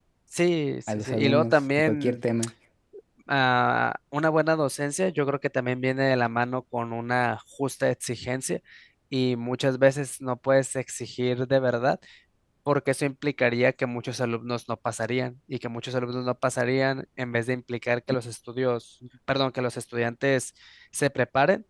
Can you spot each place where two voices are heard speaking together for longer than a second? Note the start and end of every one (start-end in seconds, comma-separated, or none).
0.9-2.2